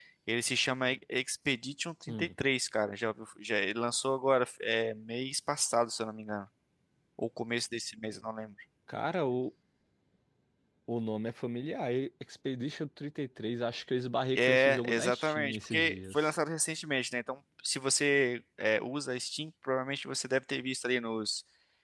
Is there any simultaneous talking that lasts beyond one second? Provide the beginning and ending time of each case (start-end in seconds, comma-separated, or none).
14.3-16.3